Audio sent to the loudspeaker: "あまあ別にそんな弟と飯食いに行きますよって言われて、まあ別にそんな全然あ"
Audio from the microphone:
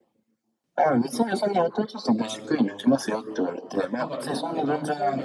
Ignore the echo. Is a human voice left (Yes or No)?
Yes